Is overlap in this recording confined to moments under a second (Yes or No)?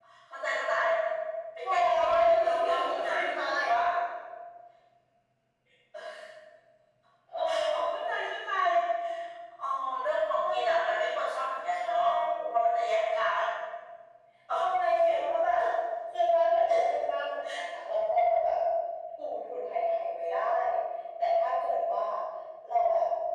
No